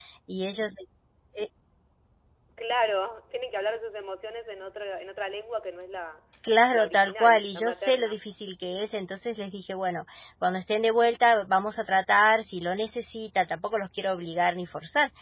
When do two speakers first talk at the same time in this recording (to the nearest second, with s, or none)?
7 s